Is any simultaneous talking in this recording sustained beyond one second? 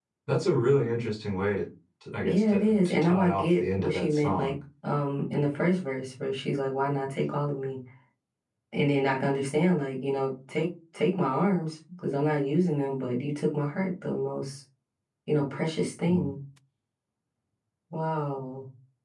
Yes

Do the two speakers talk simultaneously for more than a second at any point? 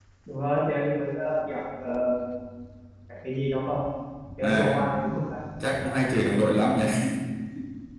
No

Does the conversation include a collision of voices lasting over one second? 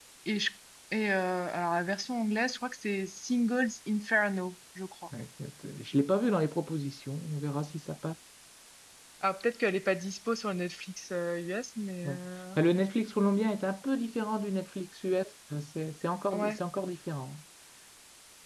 No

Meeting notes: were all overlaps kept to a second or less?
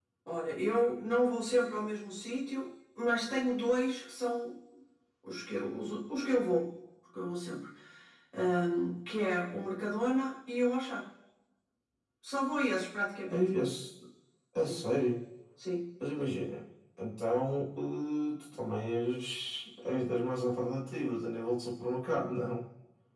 Yes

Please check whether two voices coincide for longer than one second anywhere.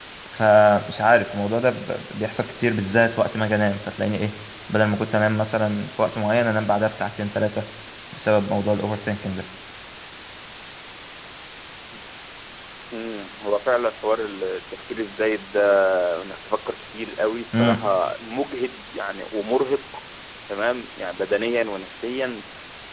No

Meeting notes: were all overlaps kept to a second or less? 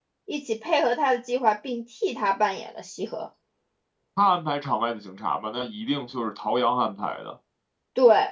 Yes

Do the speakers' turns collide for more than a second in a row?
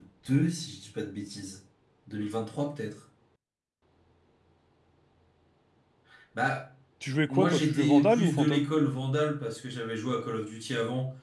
Yes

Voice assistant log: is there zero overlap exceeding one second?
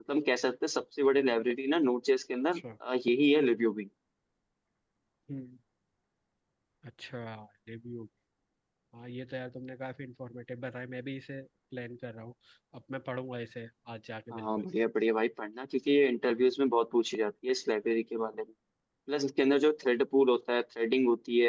Yes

